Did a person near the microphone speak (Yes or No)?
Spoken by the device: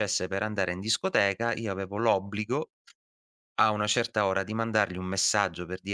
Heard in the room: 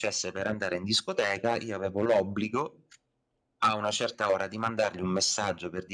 No